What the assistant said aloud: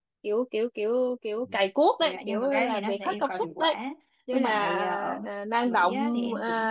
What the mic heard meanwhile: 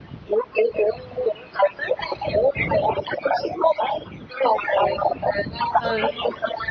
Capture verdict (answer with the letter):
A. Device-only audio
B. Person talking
B